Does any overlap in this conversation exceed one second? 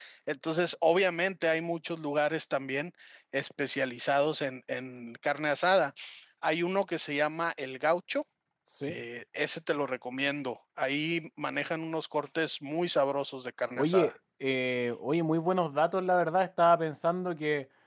No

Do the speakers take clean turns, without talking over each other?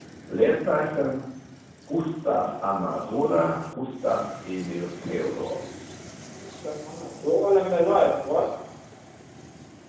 Yes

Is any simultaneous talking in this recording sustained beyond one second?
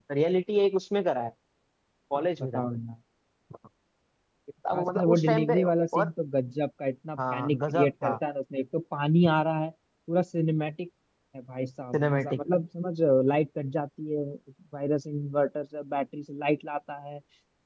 Yes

